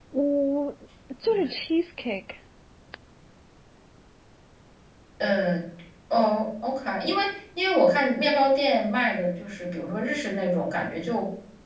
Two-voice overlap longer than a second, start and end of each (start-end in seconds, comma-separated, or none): none